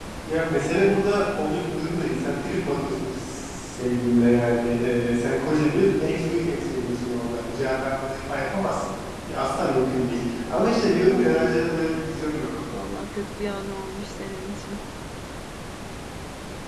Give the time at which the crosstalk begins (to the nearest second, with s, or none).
none